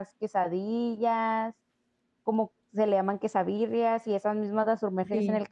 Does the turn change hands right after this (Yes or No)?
No